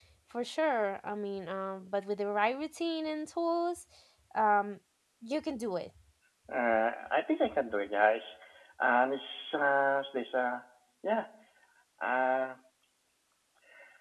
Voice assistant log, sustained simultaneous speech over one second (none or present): none